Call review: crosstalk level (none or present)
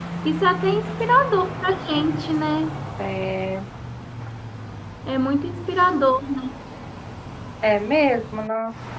none